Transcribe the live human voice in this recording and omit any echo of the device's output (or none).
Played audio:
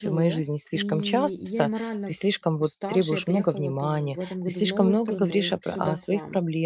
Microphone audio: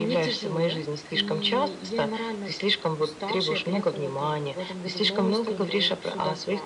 none